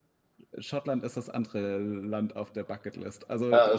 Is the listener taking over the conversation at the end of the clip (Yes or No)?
Yes